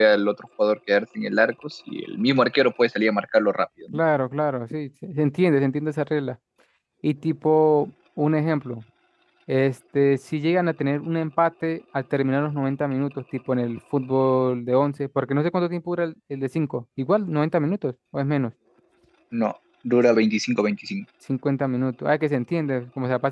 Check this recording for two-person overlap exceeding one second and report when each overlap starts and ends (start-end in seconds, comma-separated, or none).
none